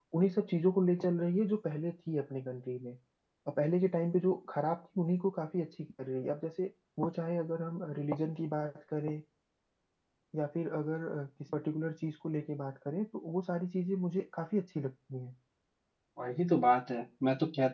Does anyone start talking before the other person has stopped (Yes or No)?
No